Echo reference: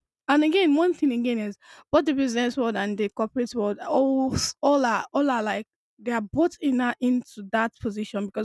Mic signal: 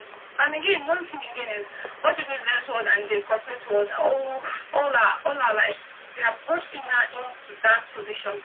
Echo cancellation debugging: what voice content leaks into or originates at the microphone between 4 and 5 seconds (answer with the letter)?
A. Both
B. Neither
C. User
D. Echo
D